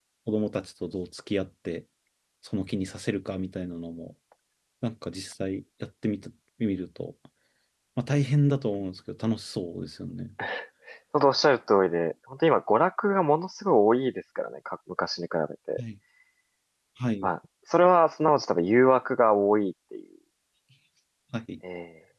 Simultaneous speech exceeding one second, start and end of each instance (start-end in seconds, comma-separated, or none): none